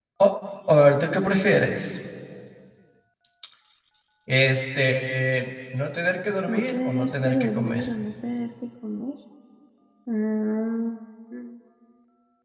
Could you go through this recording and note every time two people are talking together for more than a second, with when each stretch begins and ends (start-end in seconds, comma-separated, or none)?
6.5-7.8